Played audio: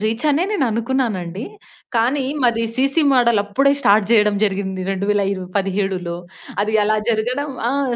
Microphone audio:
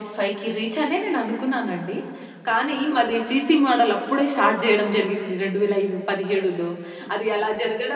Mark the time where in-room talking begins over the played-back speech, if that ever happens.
none

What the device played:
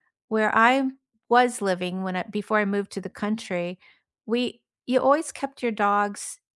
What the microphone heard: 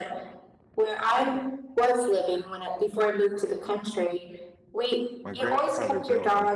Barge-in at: 5 s

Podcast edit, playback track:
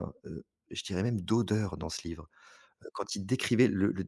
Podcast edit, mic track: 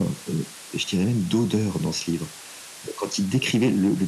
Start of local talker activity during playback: none

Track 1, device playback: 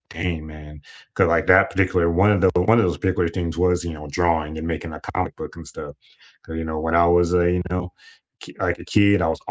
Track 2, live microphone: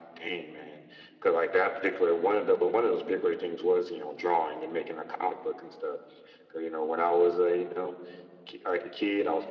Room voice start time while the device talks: none

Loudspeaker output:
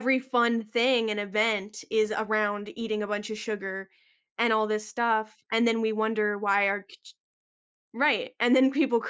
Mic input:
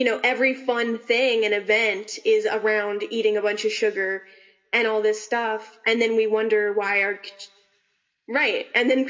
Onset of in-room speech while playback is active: none

